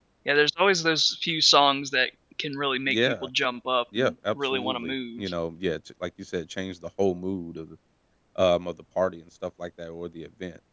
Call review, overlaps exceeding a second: present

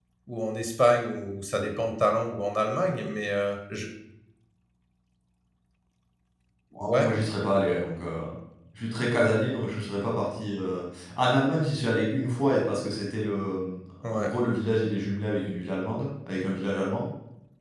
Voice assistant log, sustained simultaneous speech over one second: none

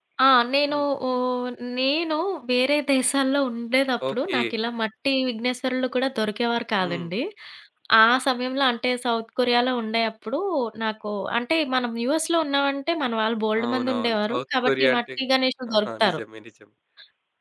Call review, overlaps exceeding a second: present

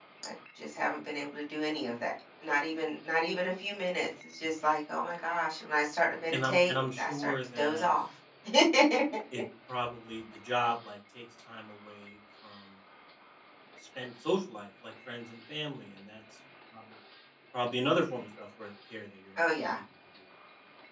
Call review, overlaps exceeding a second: present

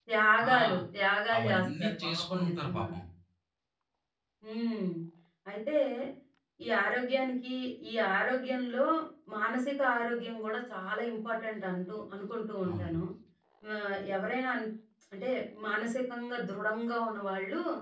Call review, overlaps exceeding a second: present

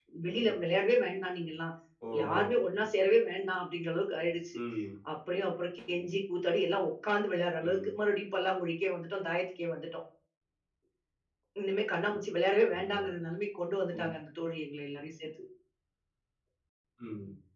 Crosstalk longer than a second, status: none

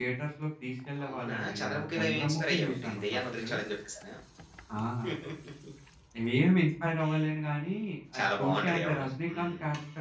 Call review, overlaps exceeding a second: present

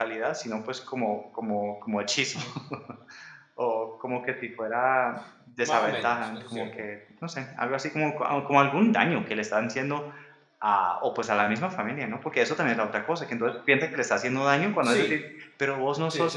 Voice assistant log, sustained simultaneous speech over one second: present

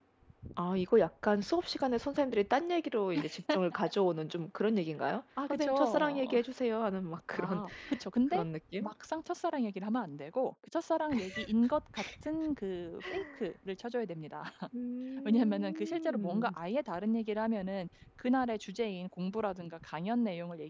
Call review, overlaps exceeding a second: present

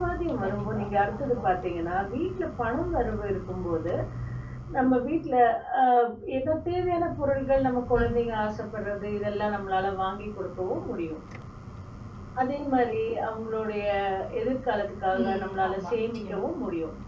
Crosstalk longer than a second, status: present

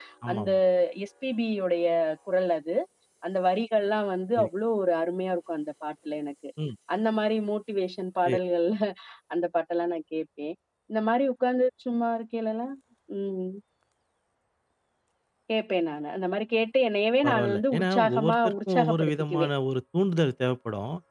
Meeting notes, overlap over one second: present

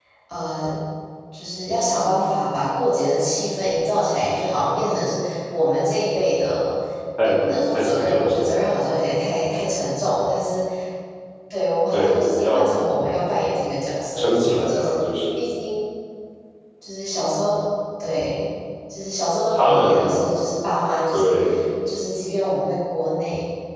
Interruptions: present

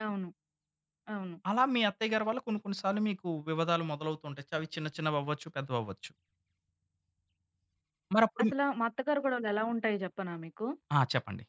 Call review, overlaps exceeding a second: none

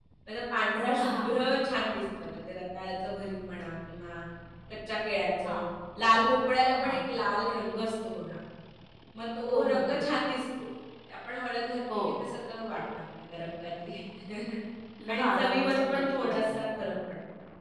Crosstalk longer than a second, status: present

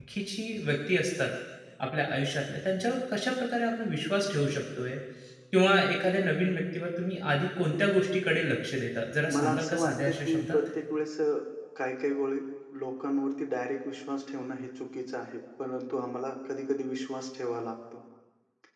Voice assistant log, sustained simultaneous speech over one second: present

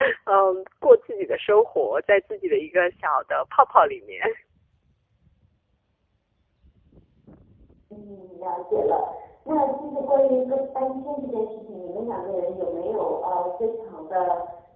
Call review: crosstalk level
none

